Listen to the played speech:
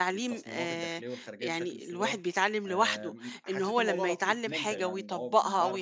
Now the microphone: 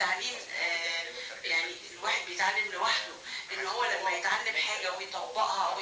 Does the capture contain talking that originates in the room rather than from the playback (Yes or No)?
No